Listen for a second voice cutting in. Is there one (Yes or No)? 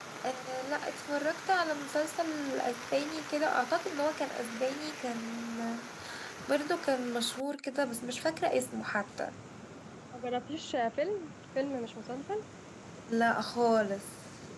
No